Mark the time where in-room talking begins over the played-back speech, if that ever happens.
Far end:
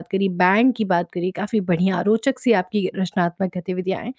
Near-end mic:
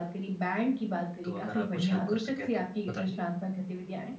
1 s

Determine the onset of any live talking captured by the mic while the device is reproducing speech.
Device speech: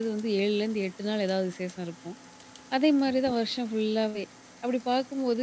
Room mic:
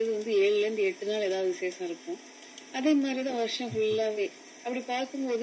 4 s

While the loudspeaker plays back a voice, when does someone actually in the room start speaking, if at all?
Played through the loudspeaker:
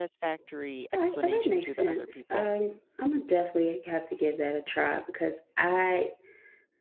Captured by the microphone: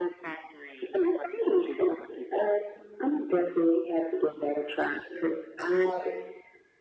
none

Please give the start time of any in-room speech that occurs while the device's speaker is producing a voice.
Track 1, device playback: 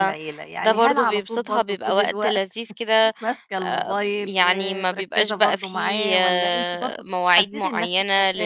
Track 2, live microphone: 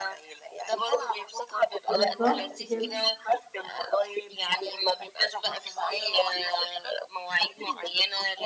2 s

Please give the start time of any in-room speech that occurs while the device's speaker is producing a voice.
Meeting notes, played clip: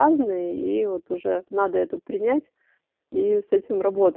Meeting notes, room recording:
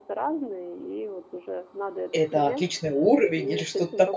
2 s

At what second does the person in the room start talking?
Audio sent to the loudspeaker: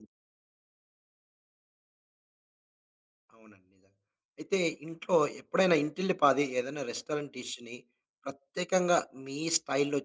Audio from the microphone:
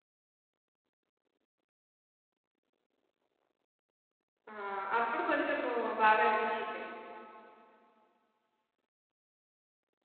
5 s

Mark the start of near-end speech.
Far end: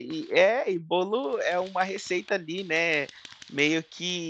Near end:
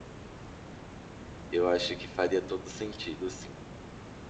2 s

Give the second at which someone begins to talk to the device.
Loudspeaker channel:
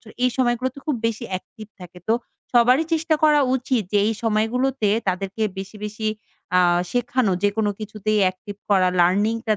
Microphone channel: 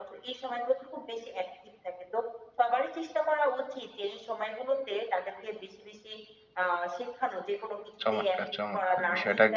8 s

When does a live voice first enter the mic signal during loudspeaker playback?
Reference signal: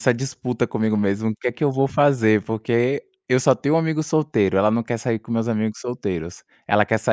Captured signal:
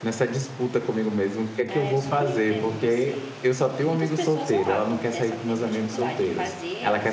2 s

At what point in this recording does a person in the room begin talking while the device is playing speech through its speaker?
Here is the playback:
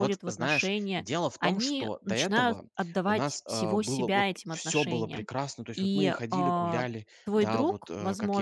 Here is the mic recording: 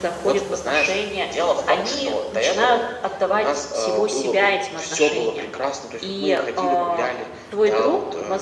none

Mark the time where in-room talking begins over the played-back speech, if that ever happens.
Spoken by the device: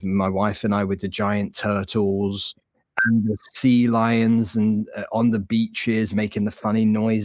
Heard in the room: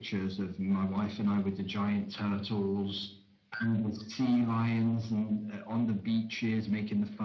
none

